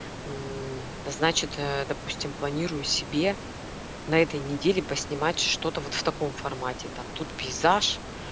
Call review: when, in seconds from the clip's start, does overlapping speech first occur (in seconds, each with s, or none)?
none